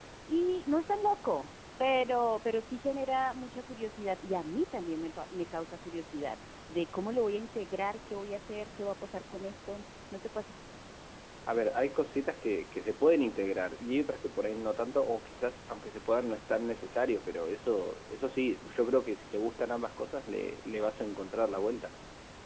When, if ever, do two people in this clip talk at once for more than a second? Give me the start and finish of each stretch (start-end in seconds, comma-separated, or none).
none